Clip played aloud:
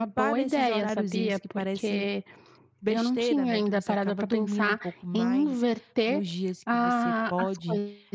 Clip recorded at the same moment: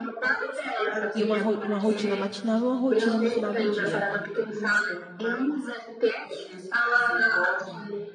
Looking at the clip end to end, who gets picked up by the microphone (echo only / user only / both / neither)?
both